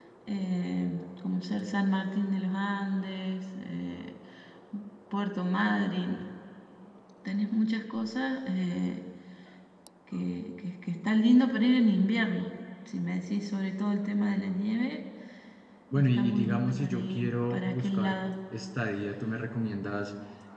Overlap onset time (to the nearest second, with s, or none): 16 s